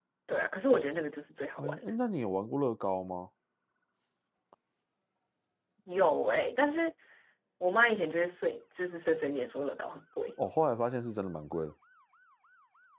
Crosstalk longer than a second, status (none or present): none